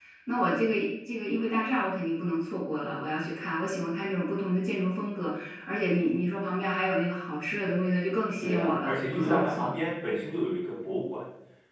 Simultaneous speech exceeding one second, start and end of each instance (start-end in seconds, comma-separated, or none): 8.4-9.8